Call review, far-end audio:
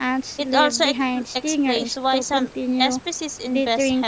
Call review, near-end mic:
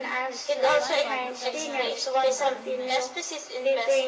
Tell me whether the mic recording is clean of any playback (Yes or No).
No